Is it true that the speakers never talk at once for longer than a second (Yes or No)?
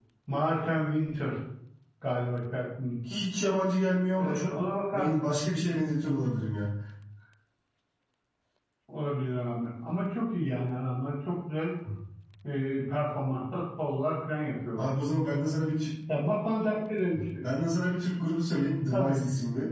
Yes